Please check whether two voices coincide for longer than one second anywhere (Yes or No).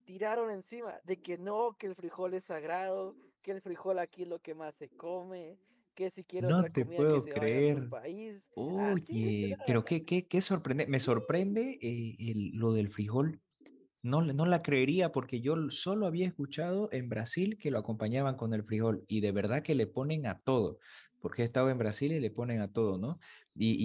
Yes